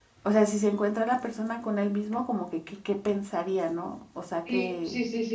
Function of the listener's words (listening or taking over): taking over